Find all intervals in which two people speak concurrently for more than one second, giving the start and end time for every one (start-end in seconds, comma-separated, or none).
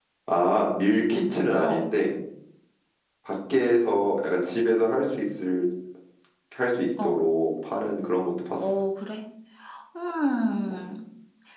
none